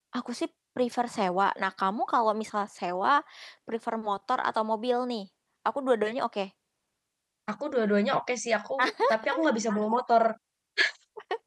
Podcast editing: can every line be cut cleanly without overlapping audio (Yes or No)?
Yes